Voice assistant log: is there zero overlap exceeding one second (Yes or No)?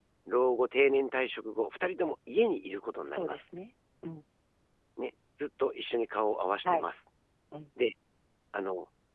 Yes